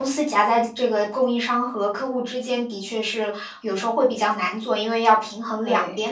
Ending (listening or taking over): listening